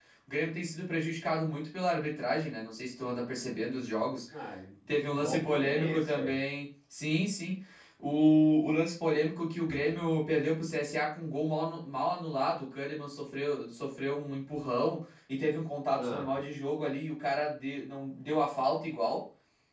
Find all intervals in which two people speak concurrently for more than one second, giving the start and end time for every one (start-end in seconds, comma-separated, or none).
5.1-6.3